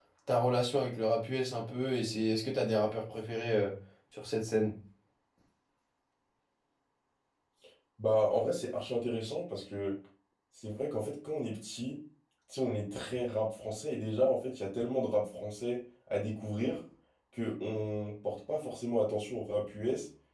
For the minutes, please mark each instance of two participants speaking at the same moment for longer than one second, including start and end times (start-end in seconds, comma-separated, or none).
none